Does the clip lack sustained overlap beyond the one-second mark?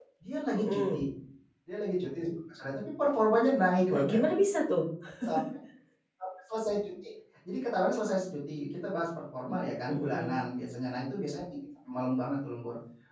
Yes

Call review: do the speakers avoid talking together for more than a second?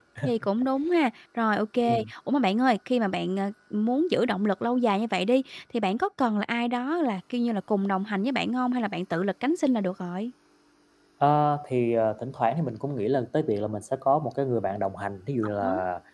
Yes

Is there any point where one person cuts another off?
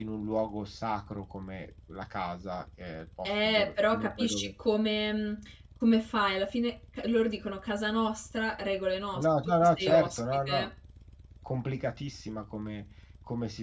Yes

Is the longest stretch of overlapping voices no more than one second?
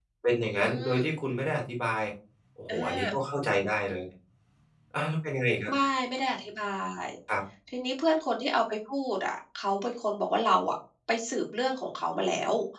Yes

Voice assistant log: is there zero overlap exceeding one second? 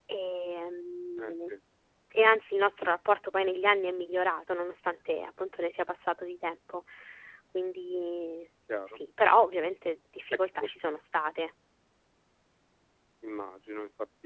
Yes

